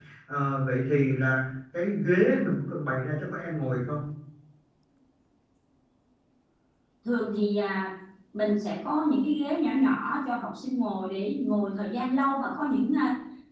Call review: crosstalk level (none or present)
none